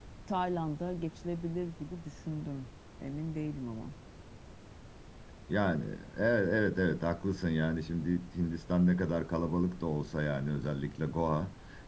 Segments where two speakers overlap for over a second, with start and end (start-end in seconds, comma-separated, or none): none